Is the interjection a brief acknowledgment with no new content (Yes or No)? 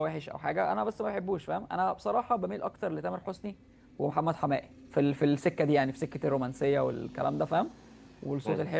Yes